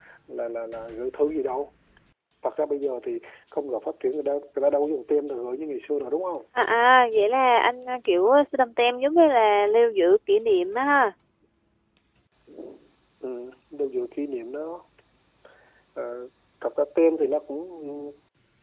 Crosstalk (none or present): none